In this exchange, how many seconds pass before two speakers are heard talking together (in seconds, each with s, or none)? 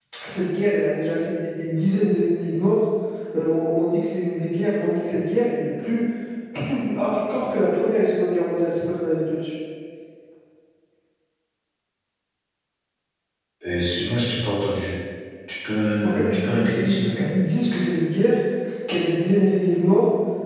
16.0 s